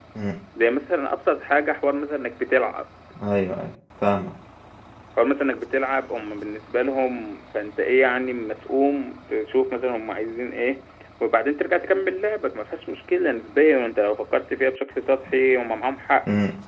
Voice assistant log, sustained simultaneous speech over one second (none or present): none